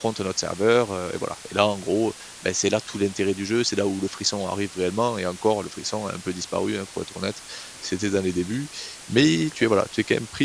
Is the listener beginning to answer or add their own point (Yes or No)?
No